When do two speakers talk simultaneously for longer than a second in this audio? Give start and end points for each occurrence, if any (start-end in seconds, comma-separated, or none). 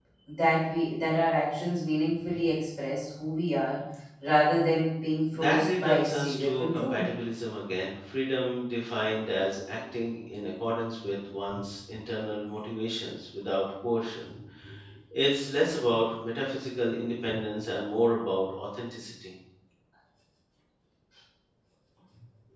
5.3-7.0